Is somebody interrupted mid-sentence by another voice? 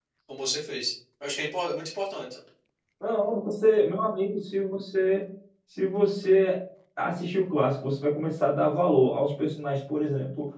No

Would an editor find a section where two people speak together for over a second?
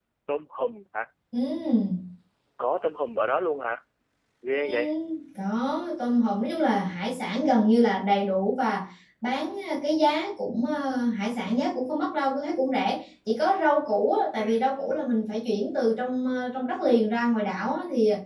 No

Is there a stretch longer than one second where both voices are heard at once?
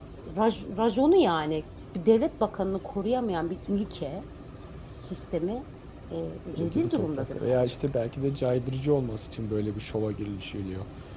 Yes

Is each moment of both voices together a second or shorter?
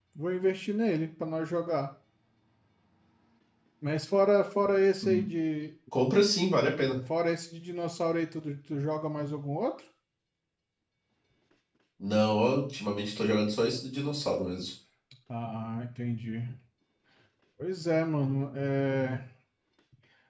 Yes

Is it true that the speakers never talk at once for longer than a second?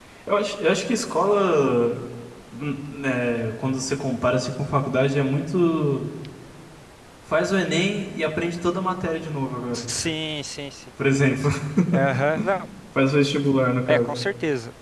Yes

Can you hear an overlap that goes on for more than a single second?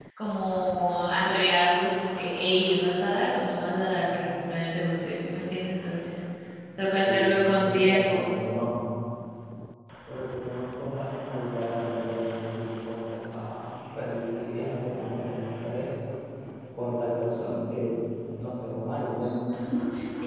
Yes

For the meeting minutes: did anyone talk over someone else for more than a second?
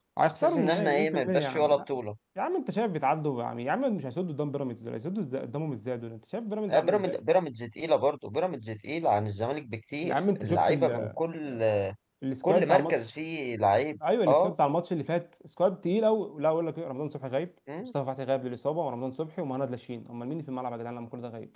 Yes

